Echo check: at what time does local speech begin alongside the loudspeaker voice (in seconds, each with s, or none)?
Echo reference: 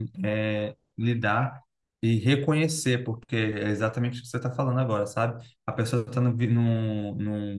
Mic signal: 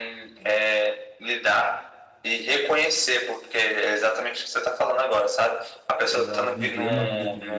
6.1 s